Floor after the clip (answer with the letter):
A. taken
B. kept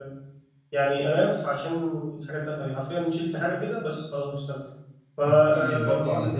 A